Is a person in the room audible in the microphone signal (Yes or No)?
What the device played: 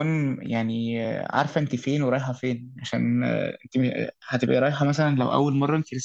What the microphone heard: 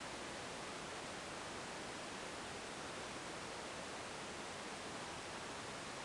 No